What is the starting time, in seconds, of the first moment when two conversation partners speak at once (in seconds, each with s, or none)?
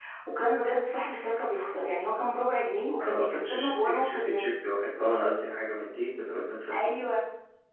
3.0 s